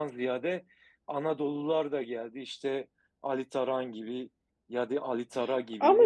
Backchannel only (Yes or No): Yes